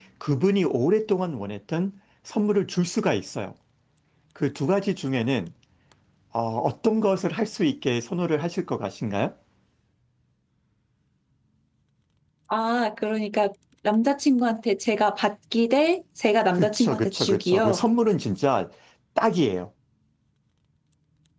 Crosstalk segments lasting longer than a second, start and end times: 16.5-17.8

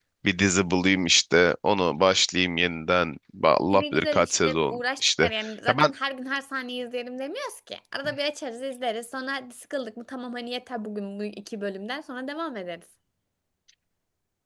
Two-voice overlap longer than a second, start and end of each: 3.7-5.3

